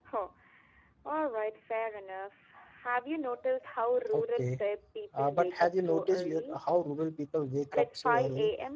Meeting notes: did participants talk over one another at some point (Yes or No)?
Yes